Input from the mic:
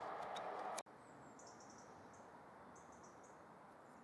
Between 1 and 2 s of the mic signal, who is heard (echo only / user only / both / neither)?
neither